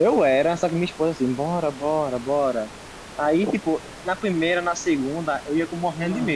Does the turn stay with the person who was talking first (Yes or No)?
Yes